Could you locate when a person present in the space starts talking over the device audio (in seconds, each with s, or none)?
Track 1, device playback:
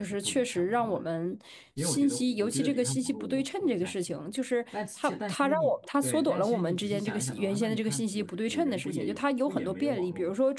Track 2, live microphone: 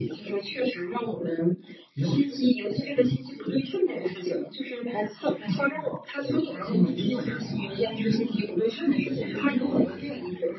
6.6 s